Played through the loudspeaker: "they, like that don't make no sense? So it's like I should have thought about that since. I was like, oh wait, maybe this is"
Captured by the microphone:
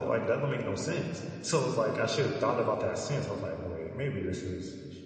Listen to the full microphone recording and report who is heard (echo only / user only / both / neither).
echo only